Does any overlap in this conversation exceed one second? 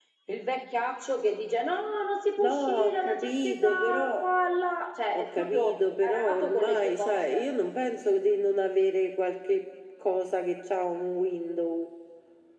Yes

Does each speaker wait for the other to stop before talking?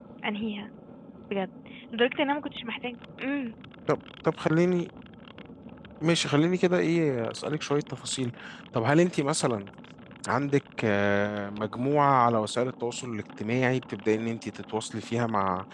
Yes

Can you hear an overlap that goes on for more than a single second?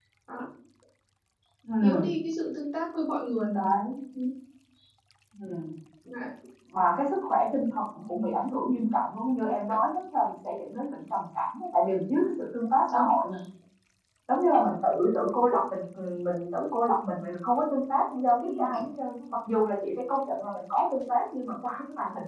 No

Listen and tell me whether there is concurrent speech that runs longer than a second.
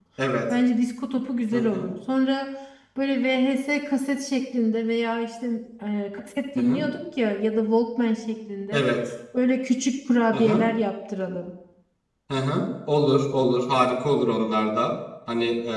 No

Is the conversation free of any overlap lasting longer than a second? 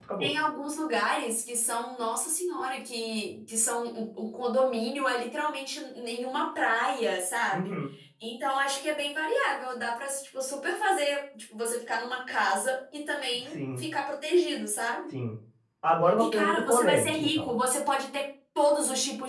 No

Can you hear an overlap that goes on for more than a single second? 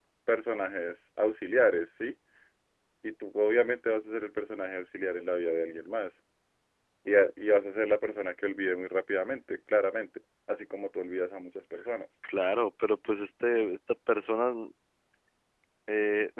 No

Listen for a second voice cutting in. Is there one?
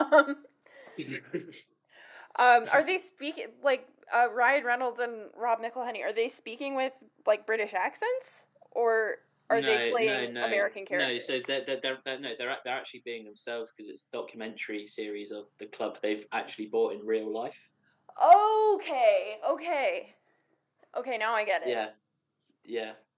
Yes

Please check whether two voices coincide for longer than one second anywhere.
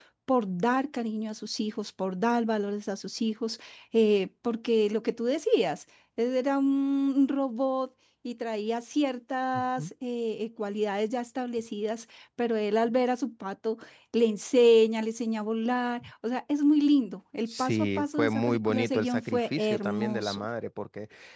Yes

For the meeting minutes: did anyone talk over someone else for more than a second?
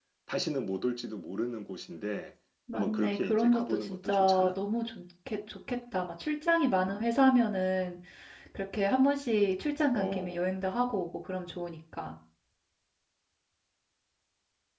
Yes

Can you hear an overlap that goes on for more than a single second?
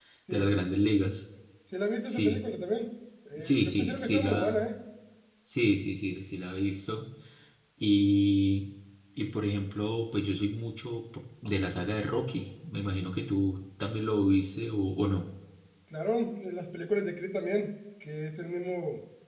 Yes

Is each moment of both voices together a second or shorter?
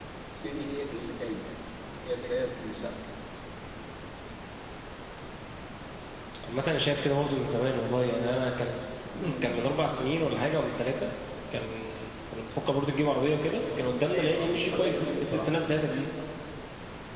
No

